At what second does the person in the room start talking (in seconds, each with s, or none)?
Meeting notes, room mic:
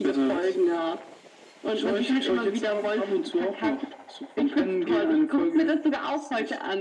none